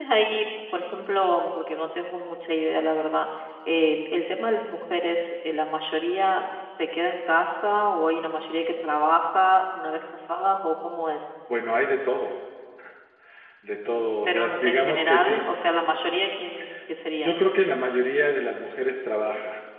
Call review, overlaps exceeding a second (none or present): present